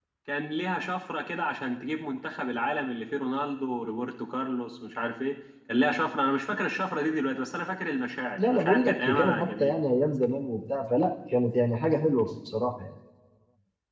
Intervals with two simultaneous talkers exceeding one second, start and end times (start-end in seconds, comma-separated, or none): 8.4-9.8